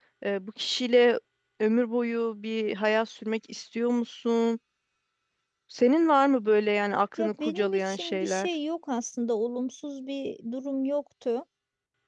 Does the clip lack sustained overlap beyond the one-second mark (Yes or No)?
No